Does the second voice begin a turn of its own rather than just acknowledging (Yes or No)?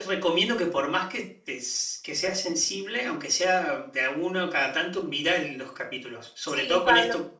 No